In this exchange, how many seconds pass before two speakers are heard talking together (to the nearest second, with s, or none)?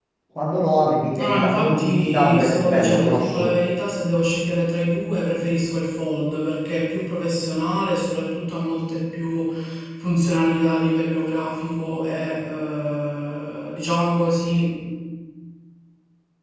1 s